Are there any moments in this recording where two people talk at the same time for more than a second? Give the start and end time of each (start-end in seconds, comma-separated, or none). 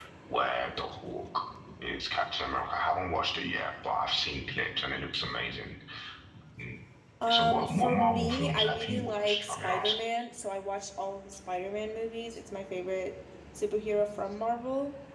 7.3-10.0